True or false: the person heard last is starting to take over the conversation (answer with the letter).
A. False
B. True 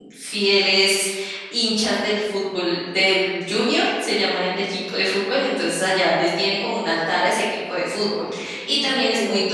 A